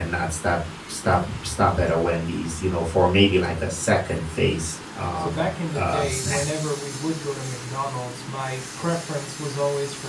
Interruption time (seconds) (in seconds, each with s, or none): 5.2 s